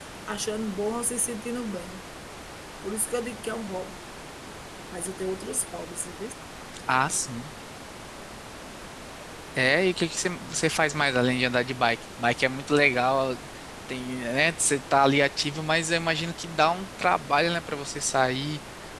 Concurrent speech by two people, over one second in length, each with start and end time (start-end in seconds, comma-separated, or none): none